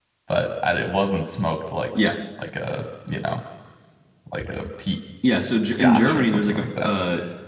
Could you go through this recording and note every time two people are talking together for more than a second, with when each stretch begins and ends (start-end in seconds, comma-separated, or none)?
5.7-6.9